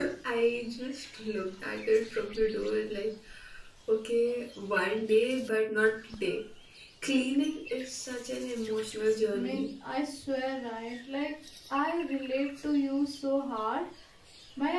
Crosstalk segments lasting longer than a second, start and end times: none

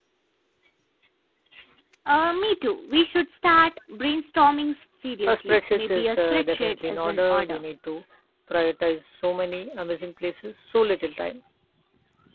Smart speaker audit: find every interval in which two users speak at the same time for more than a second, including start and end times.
5.3-7.6

